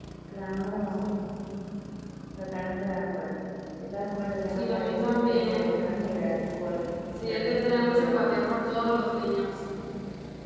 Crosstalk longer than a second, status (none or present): present